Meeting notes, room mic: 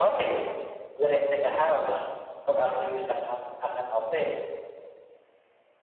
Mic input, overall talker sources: echo only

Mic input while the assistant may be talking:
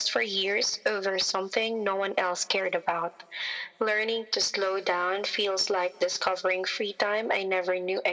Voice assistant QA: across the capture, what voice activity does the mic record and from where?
echo only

